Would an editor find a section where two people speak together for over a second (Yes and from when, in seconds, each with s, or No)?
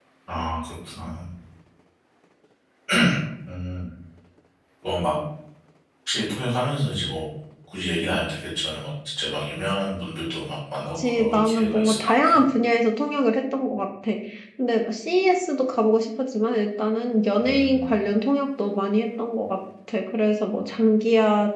Yes, from 11.0 s